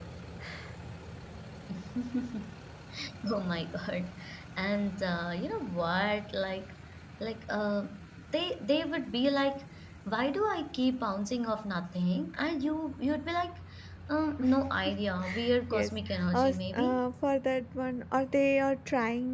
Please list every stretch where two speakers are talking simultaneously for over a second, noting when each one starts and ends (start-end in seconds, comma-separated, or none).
15.7-17.0